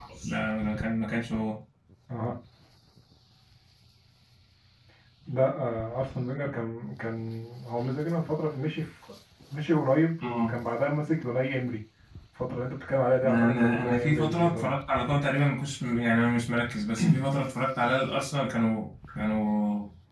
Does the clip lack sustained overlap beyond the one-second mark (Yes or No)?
No